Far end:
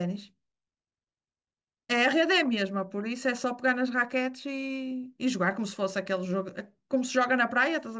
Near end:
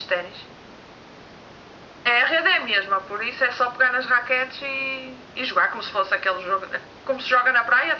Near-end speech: none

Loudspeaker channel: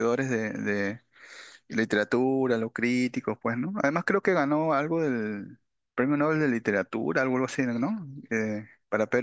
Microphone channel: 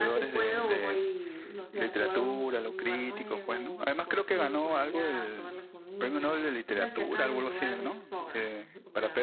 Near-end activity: present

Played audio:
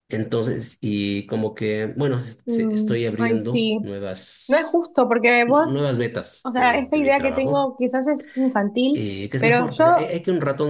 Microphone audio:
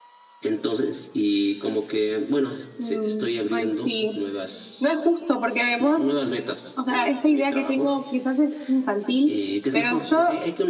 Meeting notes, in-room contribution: none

